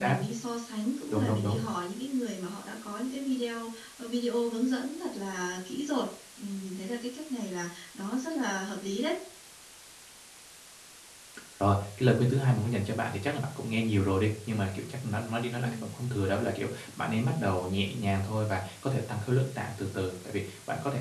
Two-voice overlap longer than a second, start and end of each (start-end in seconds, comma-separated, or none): none